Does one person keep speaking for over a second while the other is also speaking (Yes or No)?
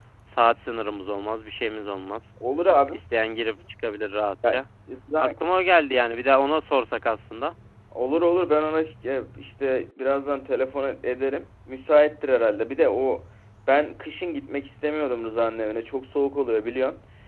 No